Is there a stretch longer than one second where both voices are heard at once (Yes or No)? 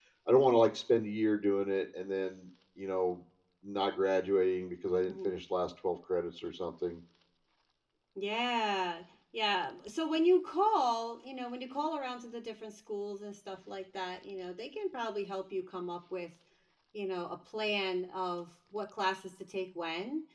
No